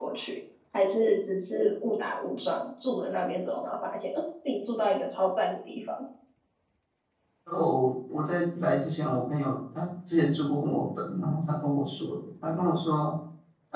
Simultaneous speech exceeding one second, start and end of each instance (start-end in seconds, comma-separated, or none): none